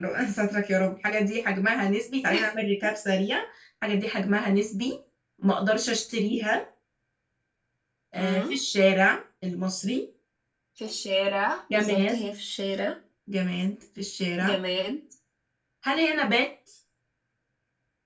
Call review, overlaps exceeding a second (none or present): none